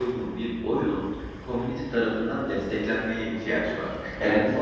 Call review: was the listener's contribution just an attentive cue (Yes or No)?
Yes